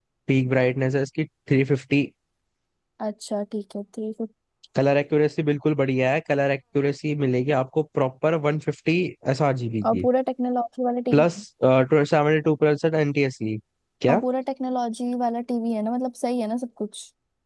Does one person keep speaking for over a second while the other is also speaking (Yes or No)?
No